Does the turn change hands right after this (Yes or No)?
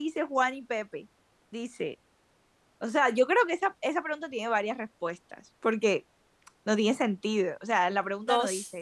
Yes